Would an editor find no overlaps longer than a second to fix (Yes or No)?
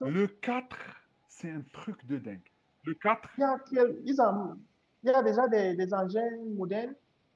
Yes